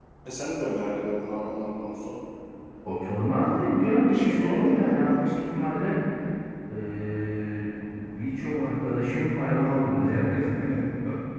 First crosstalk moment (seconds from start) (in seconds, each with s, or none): 4.1 s